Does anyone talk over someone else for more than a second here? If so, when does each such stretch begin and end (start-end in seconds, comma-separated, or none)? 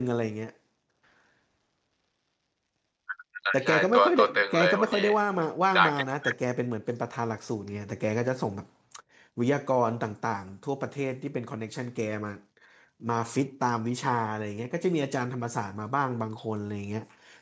3.5-5.0